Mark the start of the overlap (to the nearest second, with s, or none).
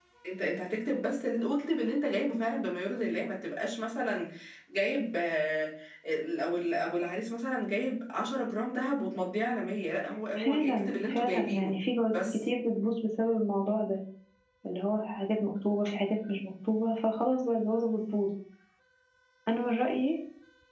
10 s